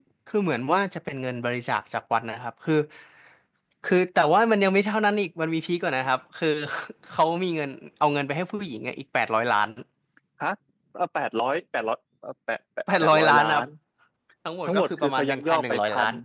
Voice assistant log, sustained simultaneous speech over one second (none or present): present